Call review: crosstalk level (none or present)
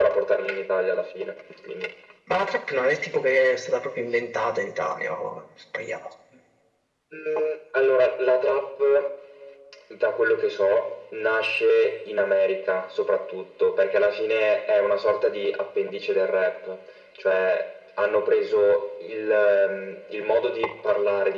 none